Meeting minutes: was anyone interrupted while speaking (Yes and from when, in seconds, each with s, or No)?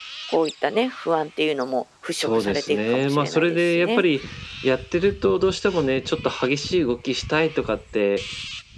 Yes, from 2.2 s